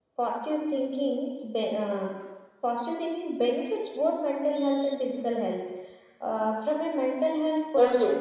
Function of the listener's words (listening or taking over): taking over